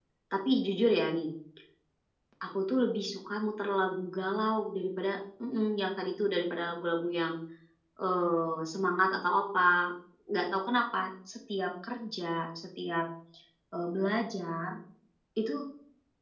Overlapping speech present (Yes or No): No